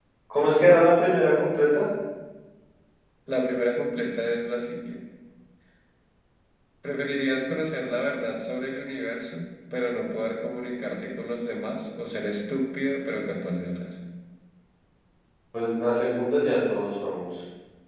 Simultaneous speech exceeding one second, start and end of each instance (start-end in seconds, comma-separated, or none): none